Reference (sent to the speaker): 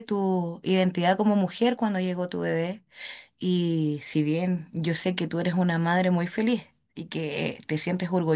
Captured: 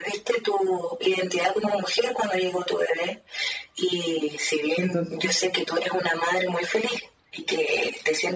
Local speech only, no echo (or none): Entonces,